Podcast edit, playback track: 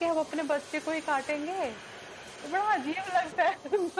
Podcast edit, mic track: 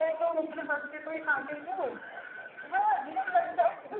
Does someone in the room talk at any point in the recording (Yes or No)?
No